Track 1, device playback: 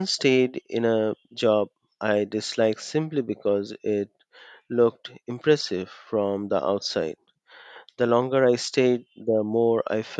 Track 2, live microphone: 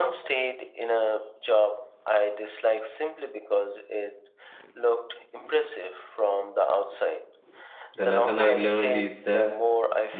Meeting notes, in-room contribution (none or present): present